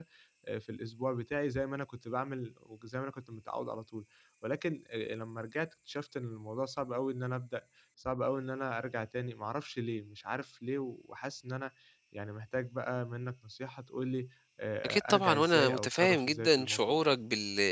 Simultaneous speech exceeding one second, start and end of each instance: 14.8-17.0

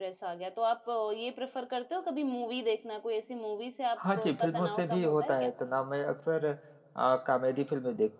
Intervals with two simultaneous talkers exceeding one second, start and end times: 4.2-5.5

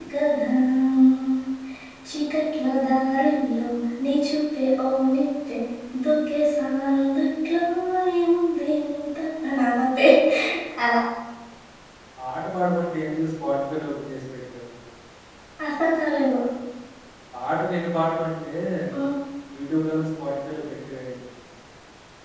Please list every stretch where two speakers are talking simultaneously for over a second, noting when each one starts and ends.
none

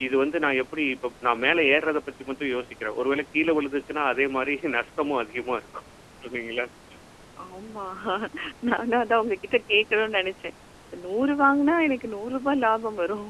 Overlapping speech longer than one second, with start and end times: none

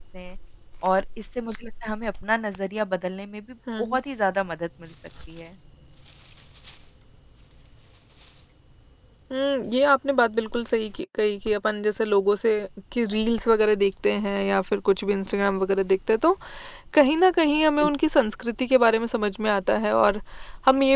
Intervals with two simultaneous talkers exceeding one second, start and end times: none

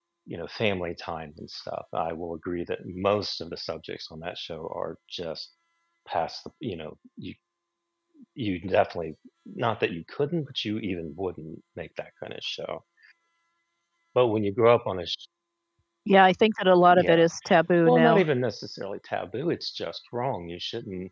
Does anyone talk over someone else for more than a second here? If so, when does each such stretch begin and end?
none

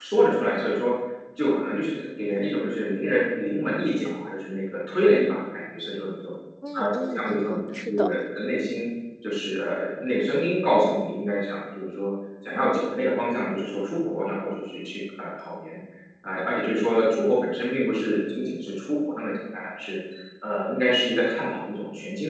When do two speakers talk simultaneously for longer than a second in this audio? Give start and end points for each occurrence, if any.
6.7-8.1

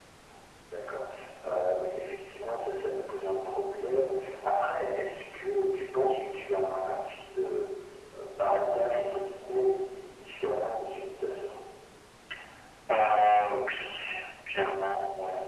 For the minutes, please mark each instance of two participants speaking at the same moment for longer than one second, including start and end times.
none

